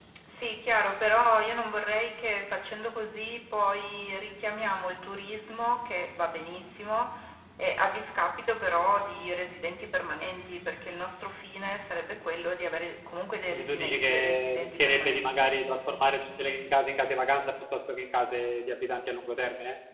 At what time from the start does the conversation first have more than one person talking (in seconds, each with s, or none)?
13.5 s